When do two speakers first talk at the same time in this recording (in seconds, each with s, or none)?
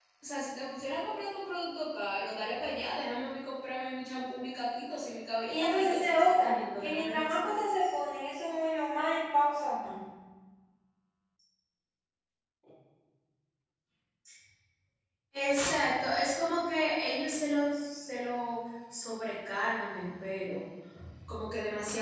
5.5 s